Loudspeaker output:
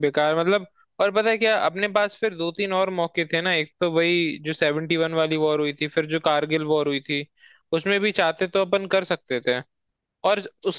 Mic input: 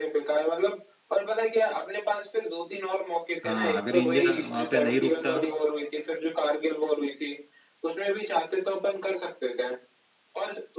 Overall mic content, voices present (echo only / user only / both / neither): both